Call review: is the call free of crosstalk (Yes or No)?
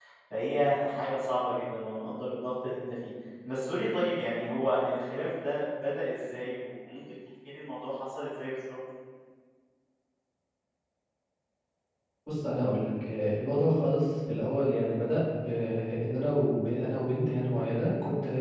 Yes